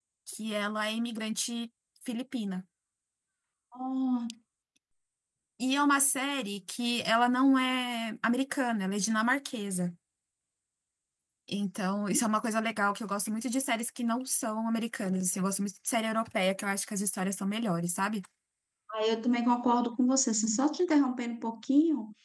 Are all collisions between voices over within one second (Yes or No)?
Yes